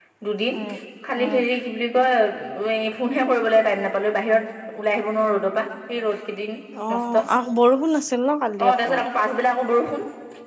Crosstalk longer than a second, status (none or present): none